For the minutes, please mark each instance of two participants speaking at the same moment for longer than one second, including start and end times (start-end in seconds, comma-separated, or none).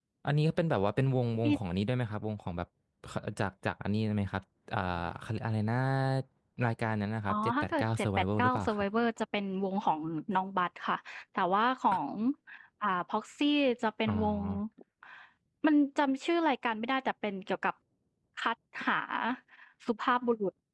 7.3-8.8